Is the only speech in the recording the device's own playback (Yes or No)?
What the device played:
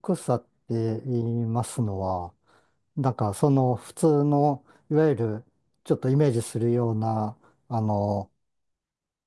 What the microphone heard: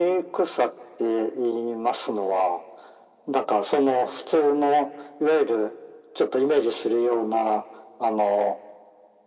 Yes